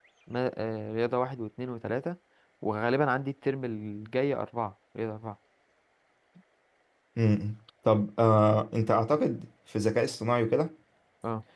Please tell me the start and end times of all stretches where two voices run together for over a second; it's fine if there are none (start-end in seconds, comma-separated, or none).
none